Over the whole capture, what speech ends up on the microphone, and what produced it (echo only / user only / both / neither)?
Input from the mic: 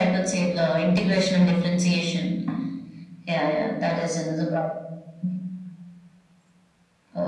echo only